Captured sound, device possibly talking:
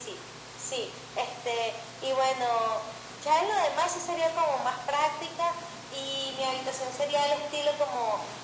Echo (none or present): present